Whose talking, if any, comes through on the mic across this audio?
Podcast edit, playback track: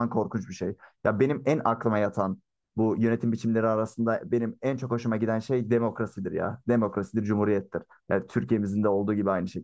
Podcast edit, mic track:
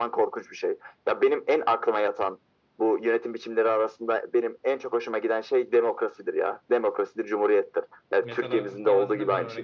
both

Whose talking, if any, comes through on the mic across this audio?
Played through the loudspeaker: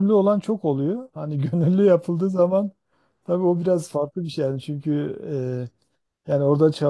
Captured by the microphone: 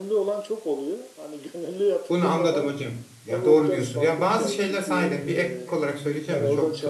both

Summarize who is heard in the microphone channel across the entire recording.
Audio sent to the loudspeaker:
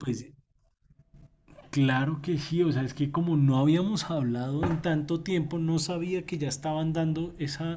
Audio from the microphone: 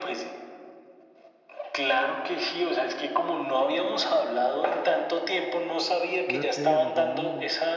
both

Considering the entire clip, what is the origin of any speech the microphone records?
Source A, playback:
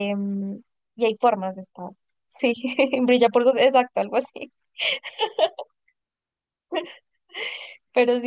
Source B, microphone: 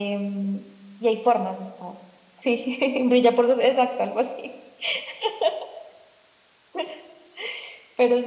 echo only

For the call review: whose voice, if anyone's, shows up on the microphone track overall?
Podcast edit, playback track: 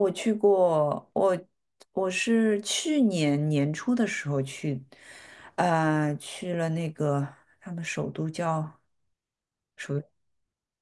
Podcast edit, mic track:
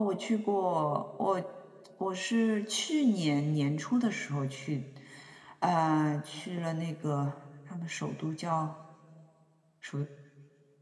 echo only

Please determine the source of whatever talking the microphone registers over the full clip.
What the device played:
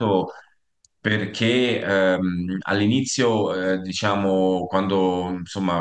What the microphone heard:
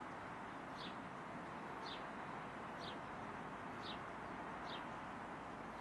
neither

